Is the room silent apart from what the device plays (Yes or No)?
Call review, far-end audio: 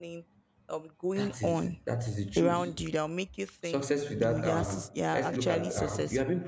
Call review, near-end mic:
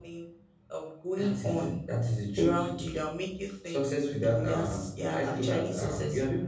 Yes